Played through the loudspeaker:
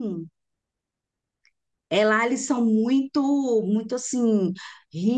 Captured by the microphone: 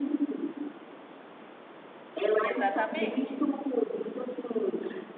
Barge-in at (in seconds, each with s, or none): 2.4 s